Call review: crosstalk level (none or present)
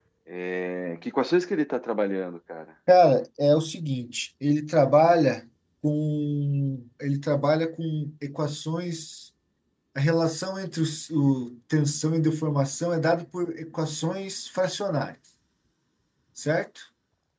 none